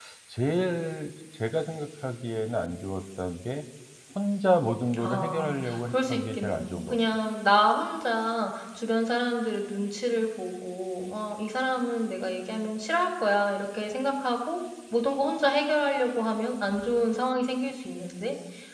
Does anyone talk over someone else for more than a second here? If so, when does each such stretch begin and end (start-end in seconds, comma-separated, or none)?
5.0-7.0